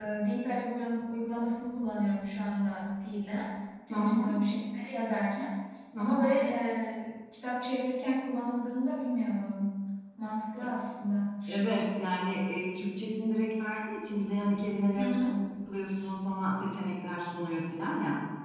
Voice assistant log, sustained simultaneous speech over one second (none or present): none